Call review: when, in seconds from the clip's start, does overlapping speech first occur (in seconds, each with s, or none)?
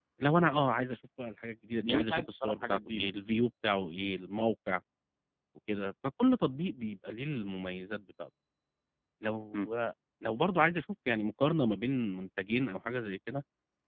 1.8 s